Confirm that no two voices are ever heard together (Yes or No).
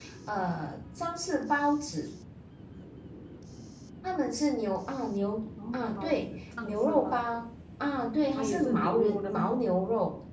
No